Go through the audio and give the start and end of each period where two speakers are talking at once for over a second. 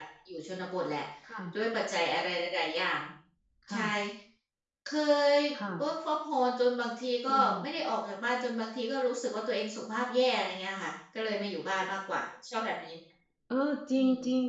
none

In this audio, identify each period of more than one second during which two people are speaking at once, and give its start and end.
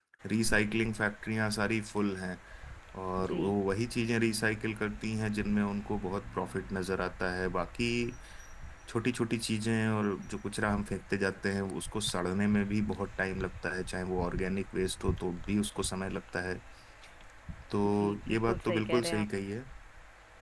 17.9-19.3

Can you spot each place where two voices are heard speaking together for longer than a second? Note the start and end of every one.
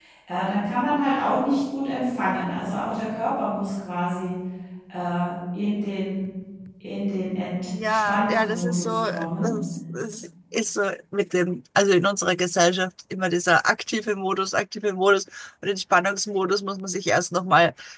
7.9-9.5

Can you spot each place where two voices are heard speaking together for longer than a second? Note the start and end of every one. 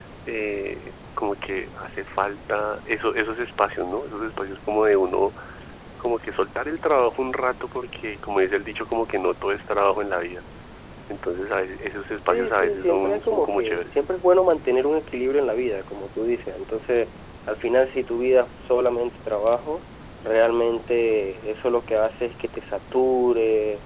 12.3-13.9

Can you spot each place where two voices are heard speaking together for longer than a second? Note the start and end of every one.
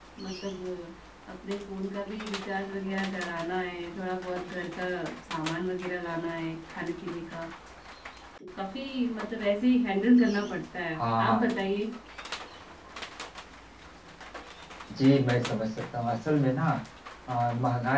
none

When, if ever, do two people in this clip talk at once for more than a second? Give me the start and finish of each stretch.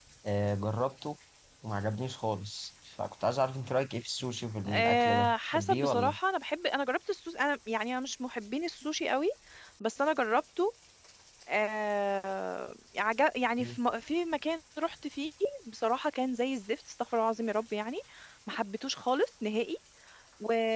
4.7-6.2

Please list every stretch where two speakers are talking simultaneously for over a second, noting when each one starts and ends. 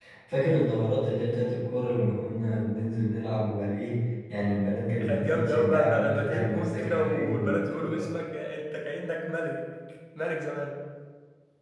5.0-8.1

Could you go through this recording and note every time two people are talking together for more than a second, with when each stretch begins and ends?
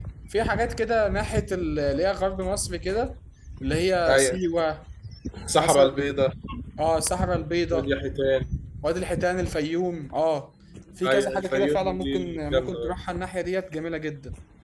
11.1-12.9

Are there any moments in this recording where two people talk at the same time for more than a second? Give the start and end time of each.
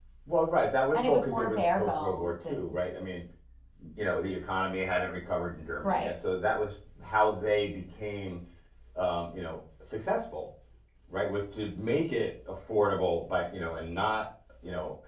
0.9-2.8

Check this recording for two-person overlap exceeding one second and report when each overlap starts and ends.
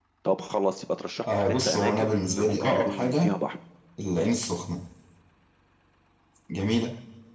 1.4-3.3

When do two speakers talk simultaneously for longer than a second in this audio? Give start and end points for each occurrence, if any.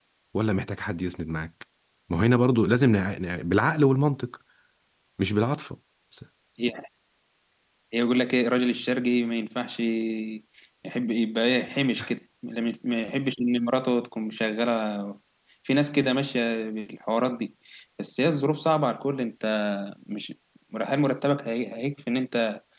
none

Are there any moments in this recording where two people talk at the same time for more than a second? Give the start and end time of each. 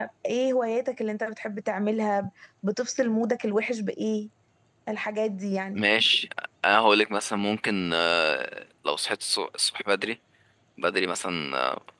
none

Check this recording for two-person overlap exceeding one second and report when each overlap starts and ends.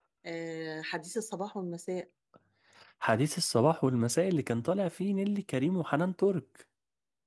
none

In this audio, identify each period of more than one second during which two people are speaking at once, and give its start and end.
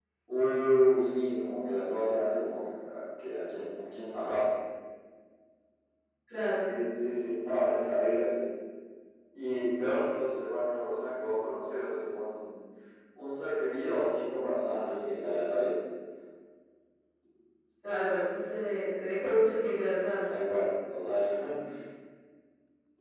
none

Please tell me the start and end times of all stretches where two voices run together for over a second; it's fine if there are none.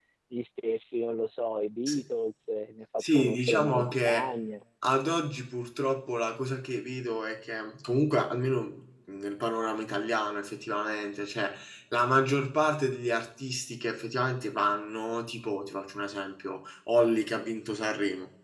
3.0-4.3

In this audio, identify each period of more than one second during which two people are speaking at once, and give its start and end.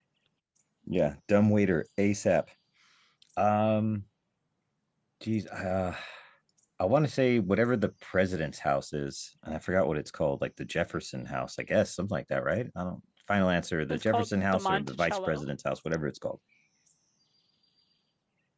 13.9-15.4

